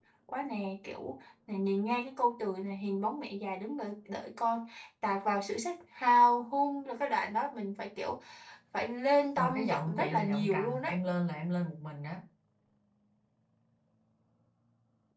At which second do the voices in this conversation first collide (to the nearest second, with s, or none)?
9 s